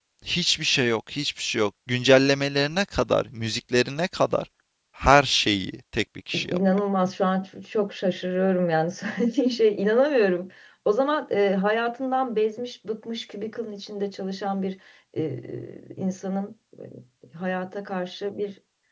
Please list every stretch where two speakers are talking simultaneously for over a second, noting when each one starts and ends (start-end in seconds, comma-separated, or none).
none